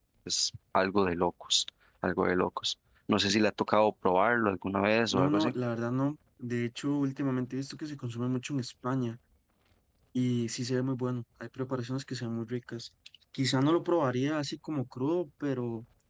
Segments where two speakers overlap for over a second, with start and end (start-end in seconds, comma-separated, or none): none